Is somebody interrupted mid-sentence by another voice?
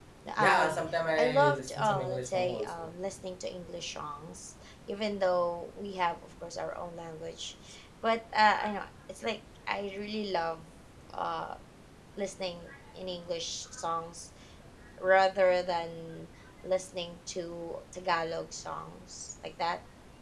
Yes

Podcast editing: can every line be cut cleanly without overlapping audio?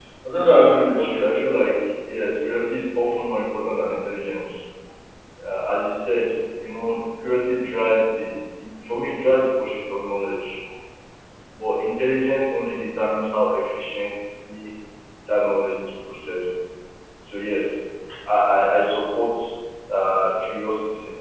No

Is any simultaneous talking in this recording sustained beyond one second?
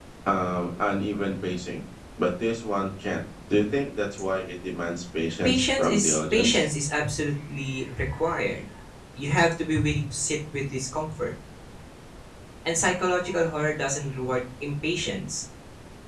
Yes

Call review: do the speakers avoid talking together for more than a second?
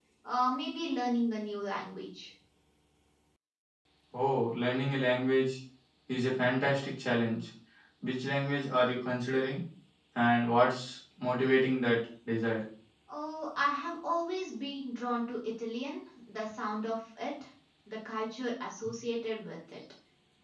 Yes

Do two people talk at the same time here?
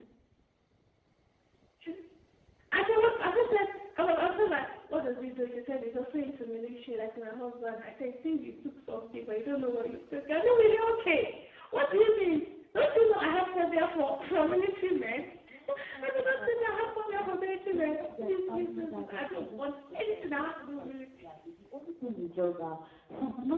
Yes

